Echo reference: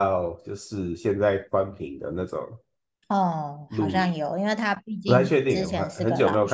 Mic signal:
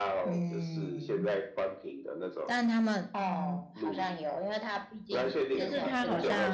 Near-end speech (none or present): present